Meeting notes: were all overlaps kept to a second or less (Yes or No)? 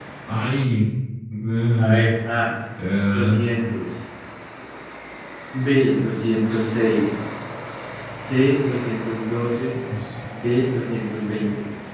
Yes